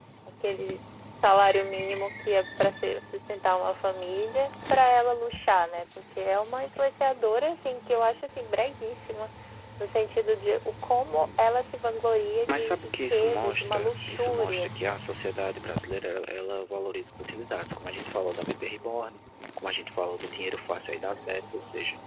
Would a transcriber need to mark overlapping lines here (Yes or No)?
Yes